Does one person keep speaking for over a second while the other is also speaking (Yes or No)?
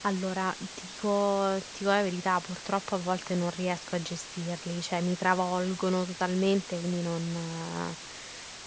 No